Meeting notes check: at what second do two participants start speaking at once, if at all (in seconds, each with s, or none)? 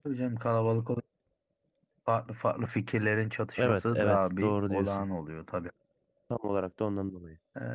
3.6 s